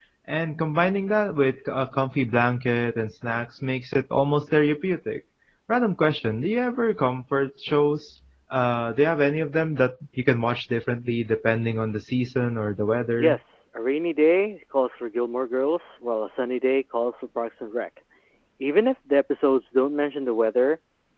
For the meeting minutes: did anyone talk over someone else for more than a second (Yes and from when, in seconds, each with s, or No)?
No